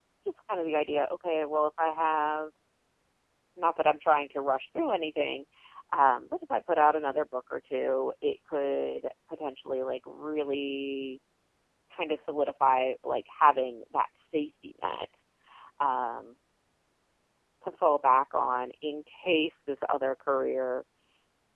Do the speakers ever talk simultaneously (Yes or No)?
No